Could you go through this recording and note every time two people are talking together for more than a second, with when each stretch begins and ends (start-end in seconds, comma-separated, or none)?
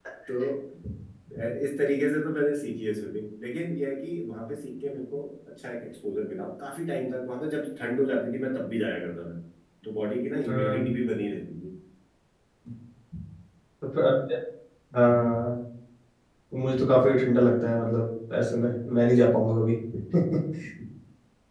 none